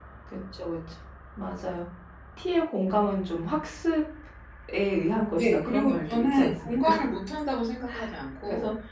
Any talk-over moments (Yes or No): Yes